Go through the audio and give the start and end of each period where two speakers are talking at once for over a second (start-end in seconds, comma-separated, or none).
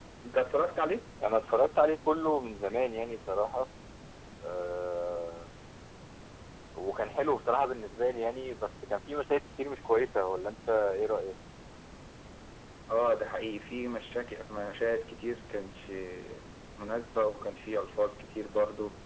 none